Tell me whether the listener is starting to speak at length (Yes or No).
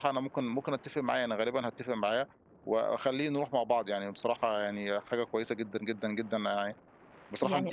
No